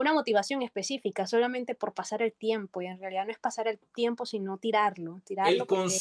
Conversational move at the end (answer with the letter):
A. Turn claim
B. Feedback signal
A